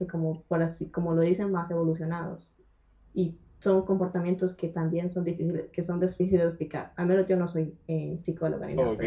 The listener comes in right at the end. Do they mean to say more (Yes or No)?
Yes